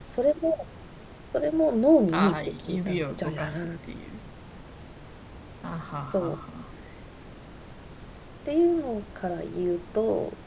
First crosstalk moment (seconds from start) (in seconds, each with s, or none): 2.1 s